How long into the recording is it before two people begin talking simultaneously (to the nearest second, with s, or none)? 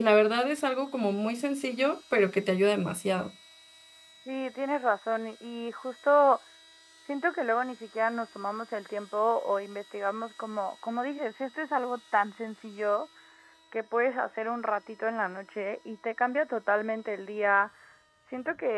none